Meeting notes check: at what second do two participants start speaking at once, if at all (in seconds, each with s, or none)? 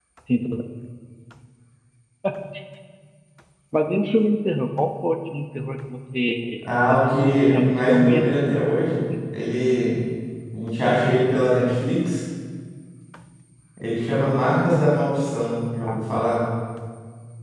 6.9 s